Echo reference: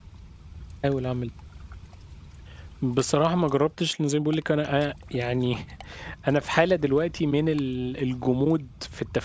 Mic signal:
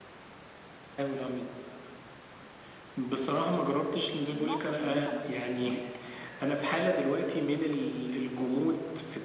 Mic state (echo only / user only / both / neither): both